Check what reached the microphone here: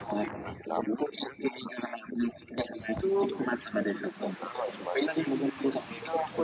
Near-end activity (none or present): none